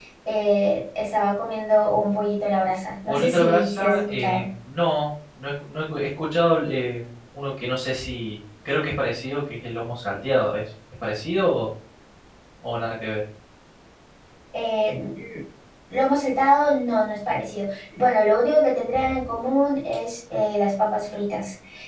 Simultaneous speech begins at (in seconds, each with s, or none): 3.1 s